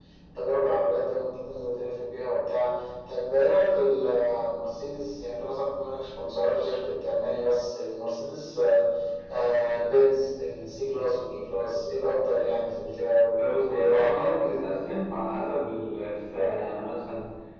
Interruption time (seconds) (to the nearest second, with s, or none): 13 s